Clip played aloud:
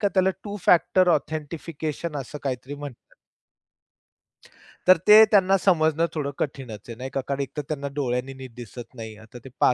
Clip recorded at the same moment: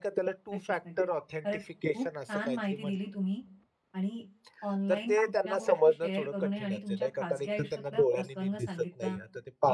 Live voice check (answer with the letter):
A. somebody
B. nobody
A